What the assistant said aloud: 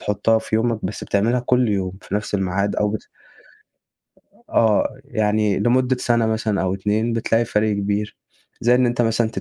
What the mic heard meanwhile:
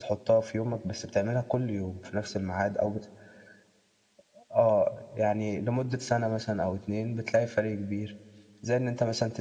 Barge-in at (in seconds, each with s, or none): none